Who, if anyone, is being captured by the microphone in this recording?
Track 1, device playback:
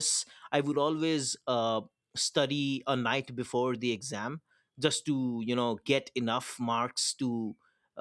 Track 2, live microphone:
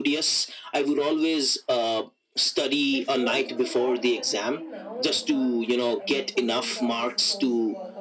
both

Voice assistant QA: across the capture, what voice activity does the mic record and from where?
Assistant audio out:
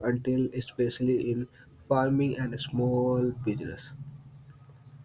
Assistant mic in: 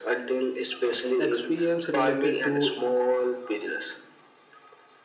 both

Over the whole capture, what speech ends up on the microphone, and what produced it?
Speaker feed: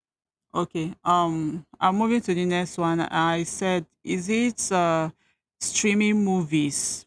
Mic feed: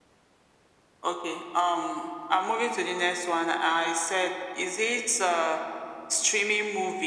echo only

